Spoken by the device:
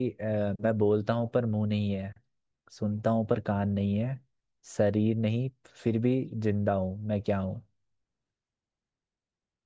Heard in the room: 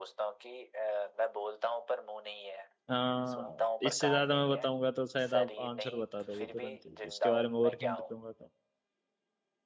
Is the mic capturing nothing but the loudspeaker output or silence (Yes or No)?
No